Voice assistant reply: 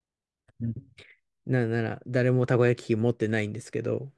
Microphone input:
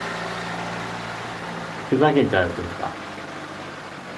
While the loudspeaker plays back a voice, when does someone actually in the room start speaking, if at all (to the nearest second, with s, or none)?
2 s